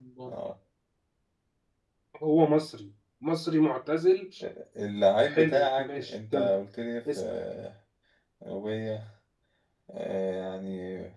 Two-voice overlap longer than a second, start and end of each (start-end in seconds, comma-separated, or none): 5.3-6.5